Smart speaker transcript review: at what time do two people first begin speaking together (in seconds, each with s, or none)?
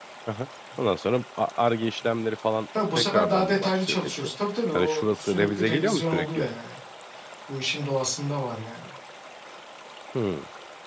3.0 s